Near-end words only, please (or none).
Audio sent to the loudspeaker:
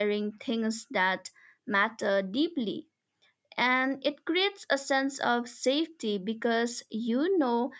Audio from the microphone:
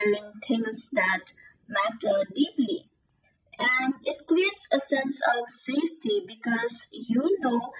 none